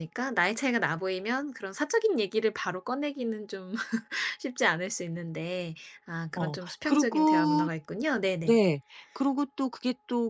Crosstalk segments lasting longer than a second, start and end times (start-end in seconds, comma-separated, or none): 6.4-7.7